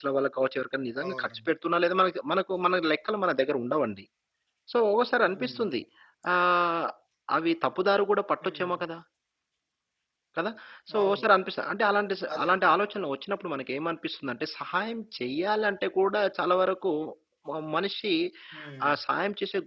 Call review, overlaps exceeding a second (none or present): none